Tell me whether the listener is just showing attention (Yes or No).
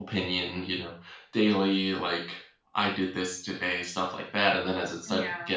Yes